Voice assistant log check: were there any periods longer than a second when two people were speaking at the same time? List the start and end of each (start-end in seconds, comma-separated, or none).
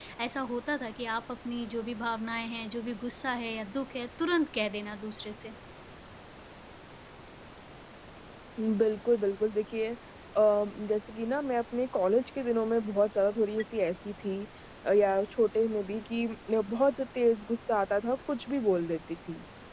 none